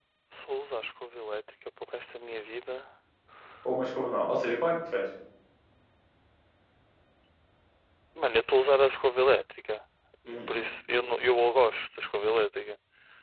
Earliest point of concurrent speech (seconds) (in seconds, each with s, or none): none